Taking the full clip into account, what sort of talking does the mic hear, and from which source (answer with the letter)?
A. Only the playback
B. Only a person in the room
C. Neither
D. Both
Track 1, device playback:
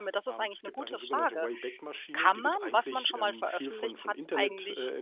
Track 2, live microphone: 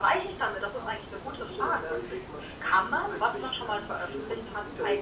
A